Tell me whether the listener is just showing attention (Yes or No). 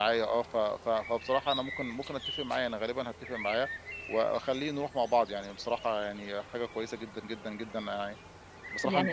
Yes